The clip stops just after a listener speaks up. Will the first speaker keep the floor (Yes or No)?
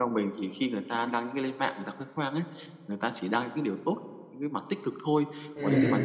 Yes